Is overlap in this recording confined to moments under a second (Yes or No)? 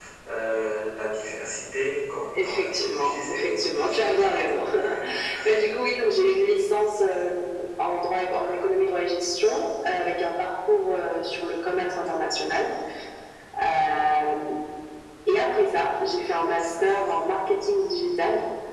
No